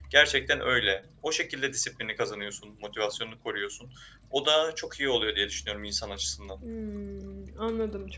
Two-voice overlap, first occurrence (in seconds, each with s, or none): none